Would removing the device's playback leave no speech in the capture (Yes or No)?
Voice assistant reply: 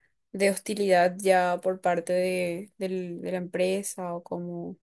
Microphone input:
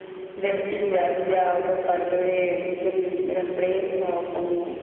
Yes